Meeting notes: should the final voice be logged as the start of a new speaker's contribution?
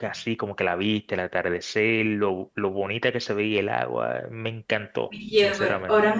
Yes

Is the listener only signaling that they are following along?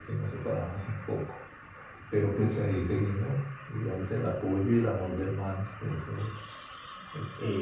No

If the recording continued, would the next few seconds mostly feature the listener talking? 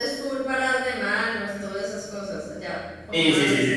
Yes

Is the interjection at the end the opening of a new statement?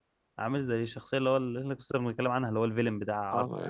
Yes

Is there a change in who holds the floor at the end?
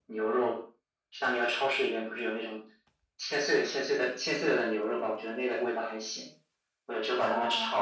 No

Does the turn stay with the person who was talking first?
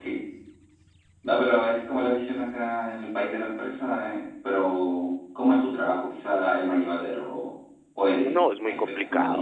No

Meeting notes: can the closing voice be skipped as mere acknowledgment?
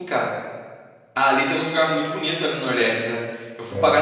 Yes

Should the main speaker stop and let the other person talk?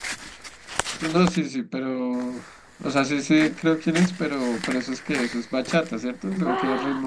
Yes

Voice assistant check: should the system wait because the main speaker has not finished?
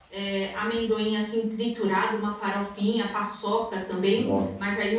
Yes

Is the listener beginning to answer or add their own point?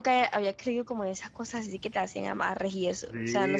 Yes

